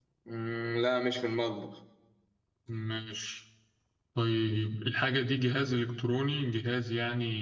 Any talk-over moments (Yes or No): No